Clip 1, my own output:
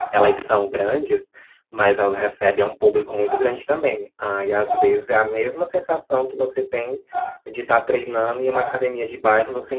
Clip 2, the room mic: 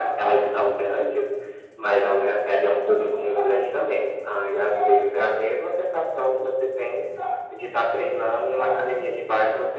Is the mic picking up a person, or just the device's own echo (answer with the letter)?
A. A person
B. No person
B